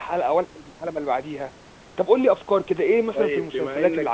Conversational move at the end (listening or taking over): taking over